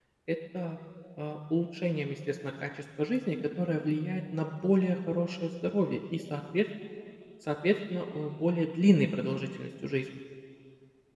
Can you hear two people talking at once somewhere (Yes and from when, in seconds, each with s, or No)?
No